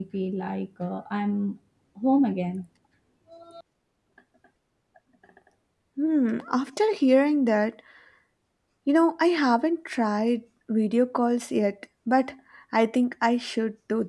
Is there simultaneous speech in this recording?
No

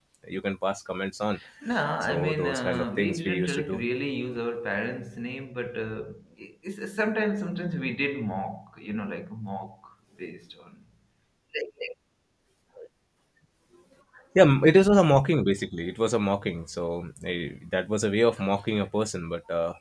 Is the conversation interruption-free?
No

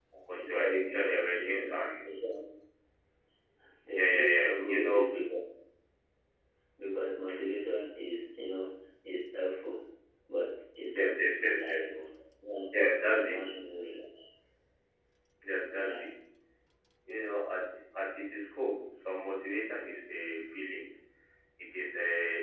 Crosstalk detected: Yes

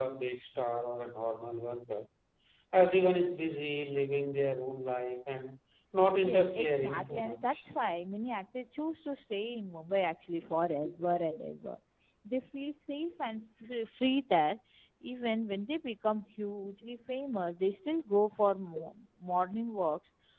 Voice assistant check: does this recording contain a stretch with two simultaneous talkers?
Yes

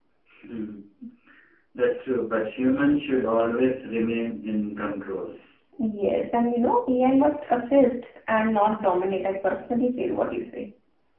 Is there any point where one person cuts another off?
No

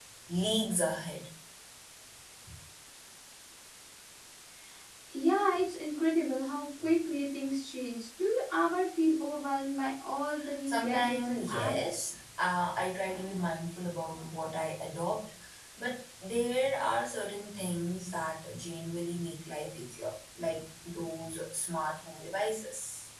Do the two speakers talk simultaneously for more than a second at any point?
Yes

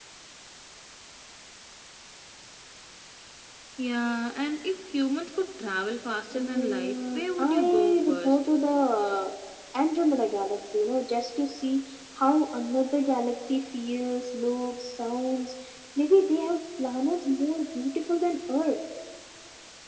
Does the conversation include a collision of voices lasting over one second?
Yes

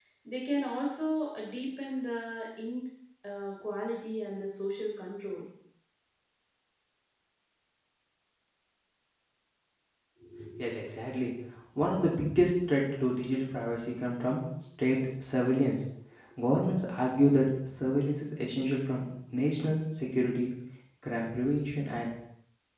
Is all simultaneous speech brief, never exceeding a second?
Yes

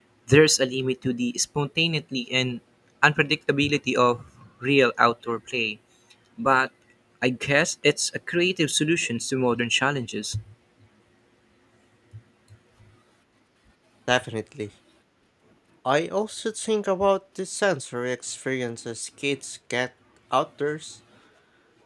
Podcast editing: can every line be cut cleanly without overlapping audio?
Yes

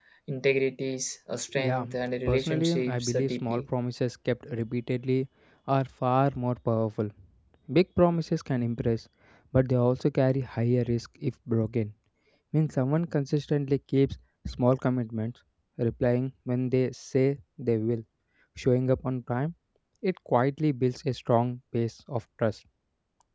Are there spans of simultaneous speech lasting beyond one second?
Yes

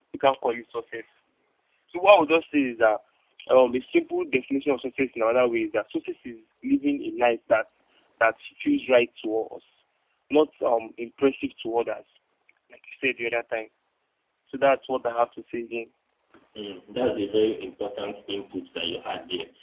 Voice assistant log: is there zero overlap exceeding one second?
Yes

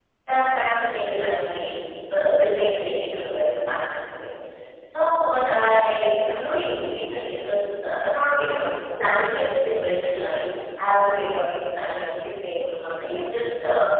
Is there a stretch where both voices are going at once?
No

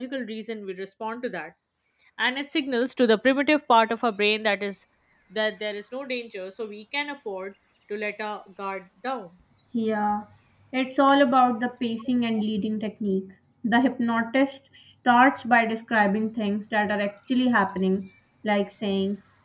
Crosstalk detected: No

